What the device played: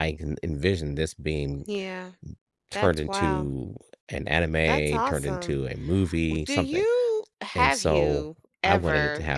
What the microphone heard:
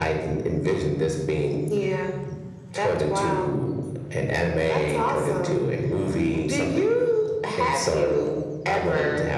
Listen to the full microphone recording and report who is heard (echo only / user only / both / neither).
echo only